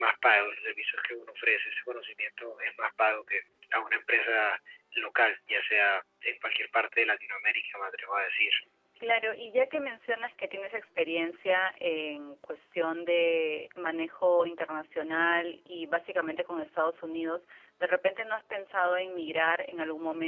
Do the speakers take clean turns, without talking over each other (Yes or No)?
Yes